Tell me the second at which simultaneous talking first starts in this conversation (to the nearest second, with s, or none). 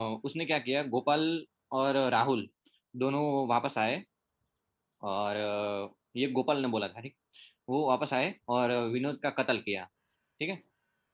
none